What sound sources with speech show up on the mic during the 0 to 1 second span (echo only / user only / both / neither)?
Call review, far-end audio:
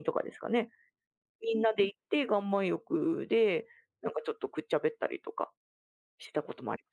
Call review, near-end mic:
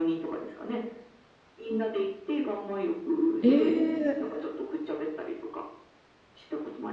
echo only